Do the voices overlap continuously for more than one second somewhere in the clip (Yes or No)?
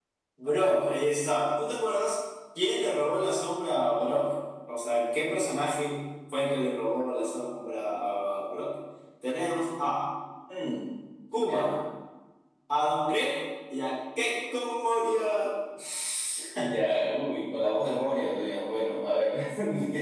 No